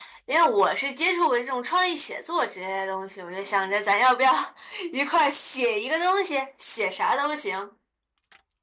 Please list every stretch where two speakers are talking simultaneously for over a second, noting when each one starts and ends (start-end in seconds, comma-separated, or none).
none